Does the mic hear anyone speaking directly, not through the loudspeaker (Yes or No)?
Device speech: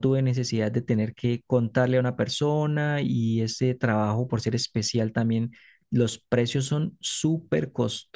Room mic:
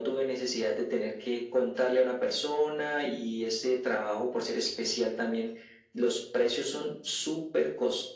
No